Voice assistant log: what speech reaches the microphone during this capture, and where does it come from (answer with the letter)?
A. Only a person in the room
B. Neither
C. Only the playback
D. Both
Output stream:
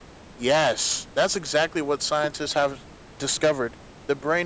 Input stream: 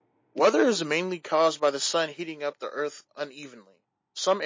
A